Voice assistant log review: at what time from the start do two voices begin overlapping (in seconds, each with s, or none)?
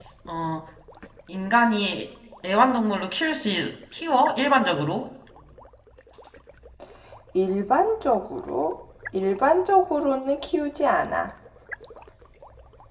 none